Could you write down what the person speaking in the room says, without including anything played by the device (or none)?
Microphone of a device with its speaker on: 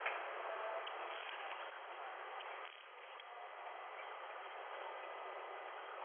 none